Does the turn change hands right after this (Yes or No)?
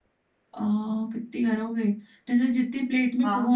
No